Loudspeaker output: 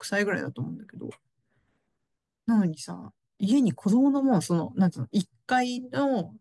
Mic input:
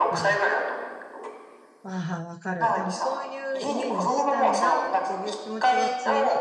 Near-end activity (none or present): present